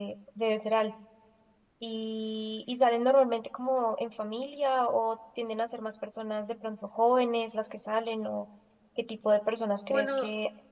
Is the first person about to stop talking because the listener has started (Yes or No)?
No